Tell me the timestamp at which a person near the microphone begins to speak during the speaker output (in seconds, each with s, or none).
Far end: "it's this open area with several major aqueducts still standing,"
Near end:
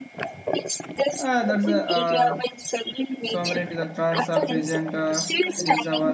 1.2 s